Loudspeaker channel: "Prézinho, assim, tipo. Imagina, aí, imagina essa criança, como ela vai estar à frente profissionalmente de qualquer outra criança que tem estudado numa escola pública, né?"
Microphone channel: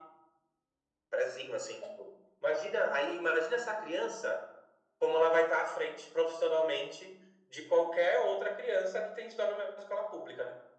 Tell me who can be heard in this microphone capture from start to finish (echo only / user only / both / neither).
echo only